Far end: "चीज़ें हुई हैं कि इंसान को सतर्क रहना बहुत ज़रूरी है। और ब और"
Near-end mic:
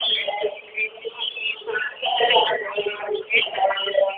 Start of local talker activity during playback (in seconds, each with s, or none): none